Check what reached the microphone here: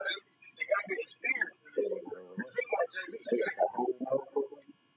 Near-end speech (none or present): none